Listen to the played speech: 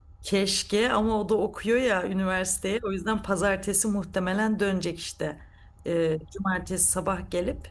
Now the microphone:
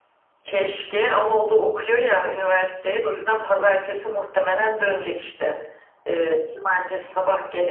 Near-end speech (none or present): none